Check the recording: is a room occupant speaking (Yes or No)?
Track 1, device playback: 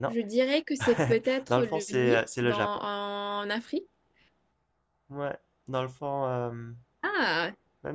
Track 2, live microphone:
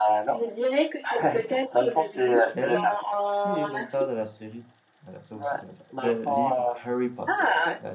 Yes